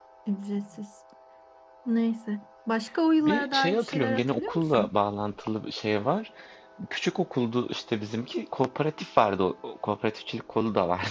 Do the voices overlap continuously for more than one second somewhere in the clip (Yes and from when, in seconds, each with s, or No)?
Yes, from 3.2 s